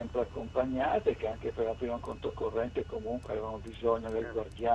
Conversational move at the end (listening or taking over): listening